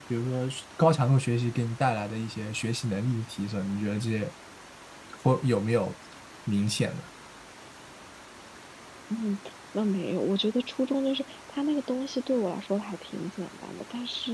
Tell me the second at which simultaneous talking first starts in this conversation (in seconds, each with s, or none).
none